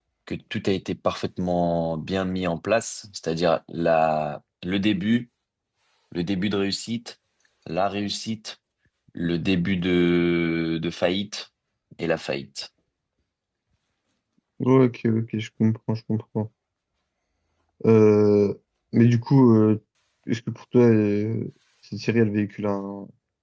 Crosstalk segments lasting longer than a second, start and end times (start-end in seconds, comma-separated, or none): none